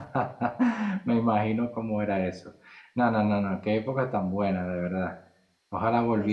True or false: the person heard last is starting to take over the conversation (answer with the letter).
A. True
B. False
B